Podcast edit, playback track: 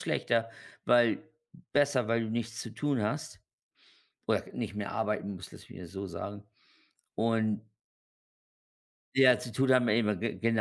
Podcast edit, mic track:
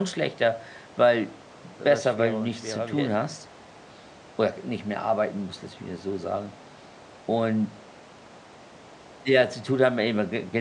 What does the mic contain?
both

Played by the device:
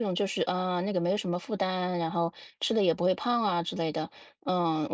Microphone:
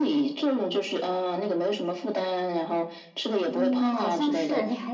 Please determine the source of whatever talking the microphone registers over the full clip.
both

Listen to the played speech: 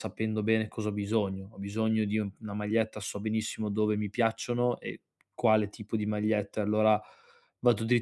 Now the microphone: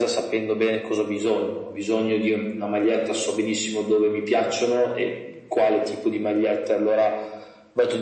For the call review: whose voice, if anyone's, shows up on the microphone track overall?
echo only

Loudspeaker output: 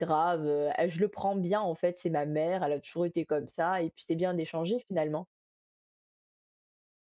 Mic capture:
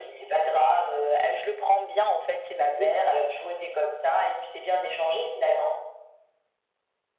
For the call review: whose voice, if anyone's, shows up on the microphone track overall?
both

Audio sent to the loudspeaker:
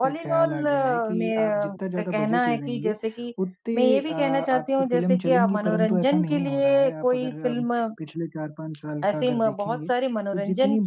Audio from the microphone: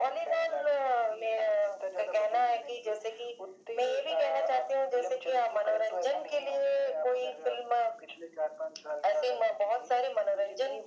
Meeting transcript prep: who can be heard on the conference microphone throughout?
echo only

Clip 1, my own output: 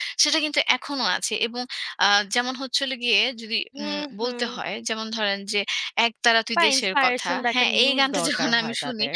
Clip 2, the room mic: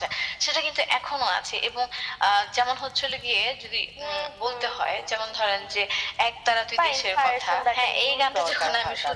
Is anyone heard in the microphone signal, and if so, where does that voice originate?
echo only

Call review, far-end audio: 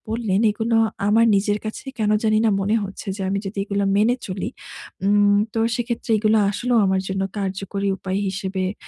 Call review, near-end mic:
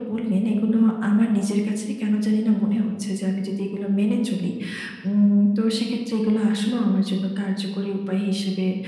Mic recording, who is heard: echo only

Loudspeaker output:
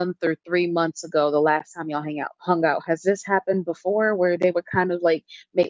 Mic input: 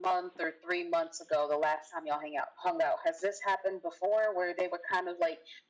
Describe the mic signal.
echo only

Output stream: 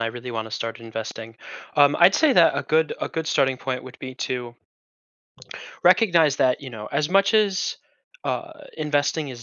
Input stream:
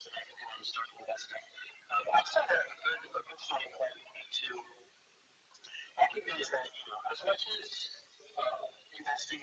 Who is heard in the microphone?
echo only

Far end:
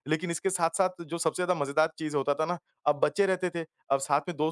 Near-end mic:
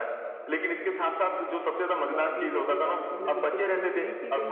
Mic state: both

